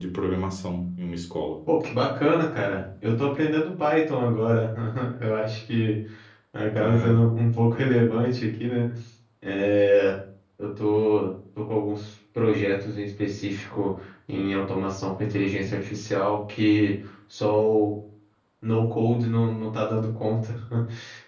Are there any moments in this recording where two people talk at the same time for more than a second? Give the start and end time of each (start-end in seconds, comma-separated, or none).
none